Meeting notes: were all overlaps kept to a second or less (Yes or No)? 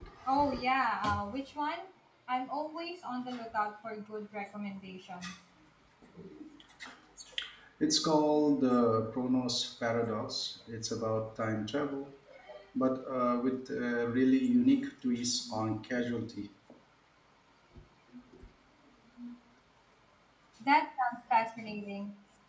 Yes